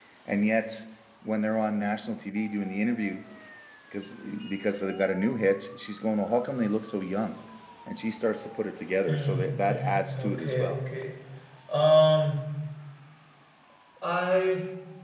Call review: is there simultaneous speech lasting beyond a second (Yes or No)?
Yes